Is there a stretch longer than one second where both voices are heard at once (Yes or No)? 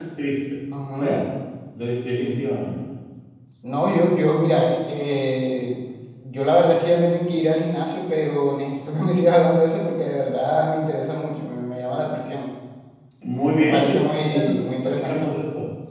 Yes